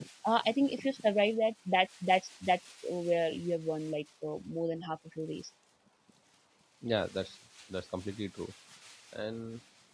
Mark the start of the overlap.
none

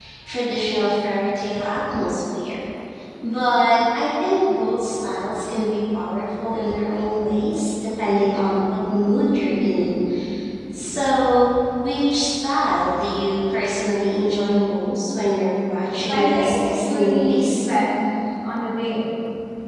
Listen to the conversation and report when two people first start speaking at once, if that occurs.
16.1 s

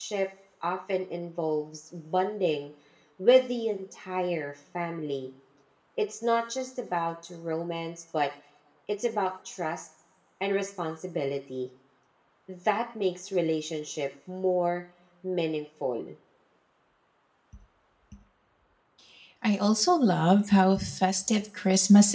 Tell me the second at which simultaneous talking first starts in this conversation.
none

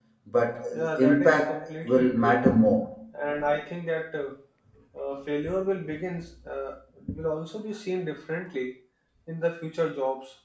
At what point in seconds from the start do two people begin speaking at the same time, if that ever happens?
0.7 s

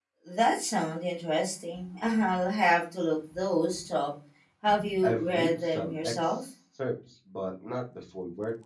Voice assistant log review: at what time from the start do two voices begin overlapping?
5.0 s

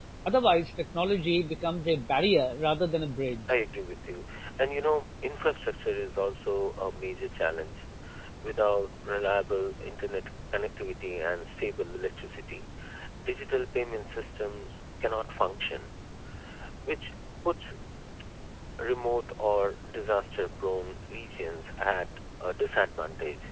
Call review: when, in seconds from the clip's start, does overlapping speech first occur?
none

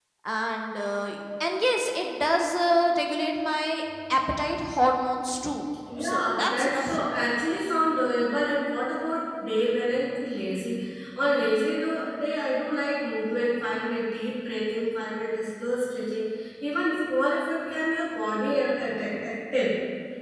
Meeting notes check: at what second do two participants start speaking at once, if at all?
5.9 s

